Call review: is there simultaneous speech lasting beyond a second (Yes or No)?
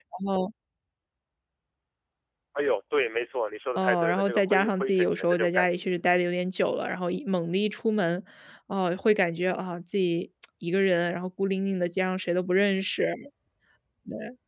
Yes